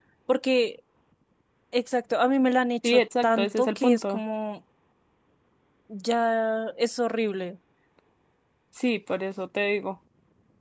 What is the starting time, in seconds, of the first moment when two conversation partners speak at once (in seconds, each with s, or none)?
2.8 s